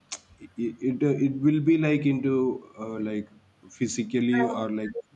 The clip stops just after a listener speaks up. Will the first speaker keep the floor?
Yes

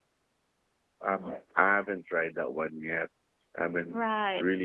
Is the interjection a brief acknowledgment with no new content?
Yes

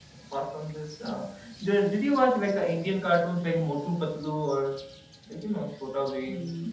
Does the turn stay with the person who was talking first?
No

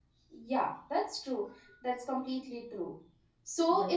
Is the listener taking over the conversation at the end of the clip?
No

